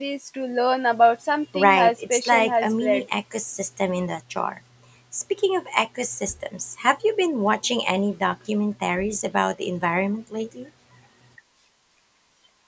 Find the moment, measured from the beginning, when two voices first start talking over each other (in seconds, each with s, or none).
1.5 s